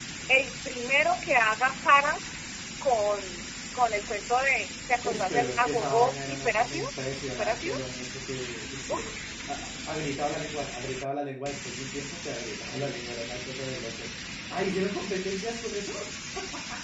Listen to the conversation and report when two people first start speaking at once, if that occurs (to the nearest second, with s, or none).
5 s